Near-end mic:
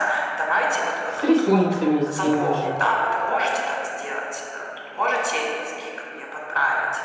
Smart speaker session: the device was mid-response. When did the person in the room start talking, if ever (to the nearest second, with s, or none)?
1 s